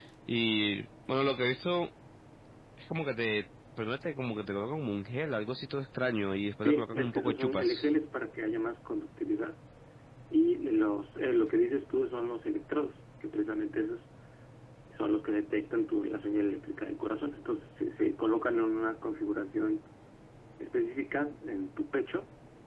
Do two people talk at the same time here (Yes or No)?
Yes